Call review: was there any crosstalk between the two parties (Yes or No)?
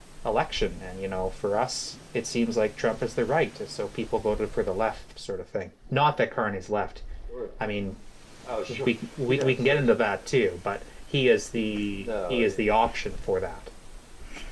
Yes